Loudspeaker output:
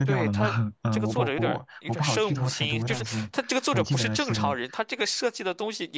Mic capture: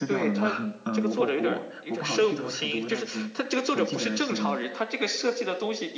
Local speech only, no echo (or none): none